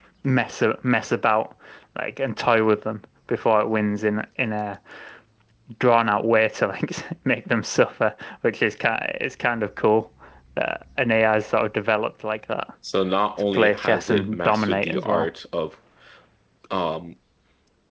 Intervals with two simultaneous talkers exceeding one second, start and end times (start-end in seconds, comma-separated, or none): 13.5-15.3